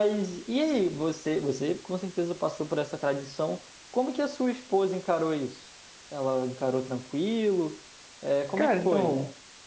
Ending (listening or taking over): taking over